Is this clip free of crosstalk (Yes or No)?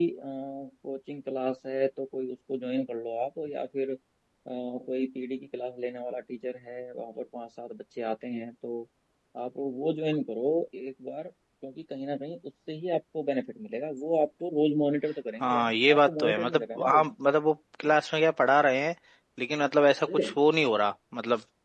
No